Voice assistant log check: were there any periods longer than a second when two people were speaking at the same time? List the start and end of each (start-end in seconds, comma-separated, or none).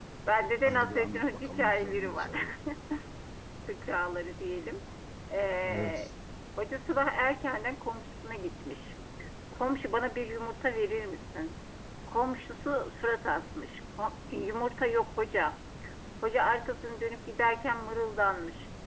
0.7-2.3